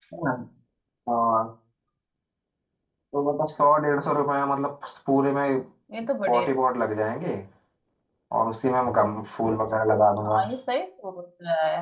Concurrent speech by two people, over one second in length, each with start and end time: none

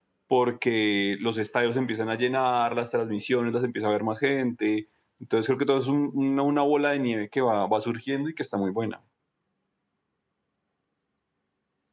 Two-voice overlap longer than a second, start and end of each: none

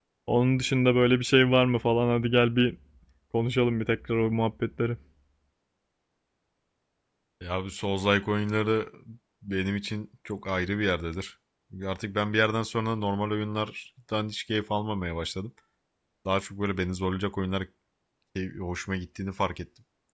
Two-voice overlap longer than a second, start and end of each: none

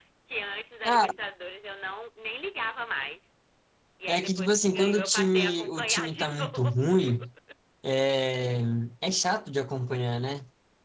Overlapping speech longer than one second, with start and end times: 4.1-6.8

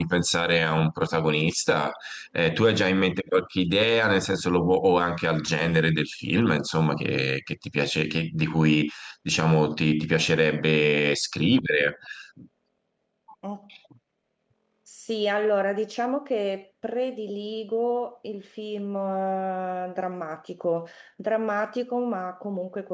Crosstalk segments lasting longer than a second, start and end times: none

